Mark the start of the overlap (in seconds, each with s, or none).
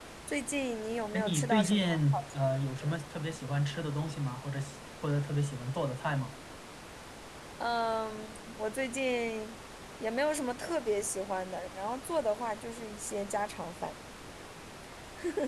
1.1 s